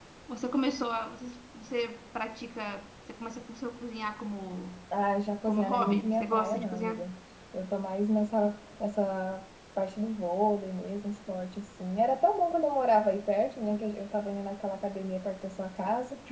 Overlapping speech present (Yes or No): Yes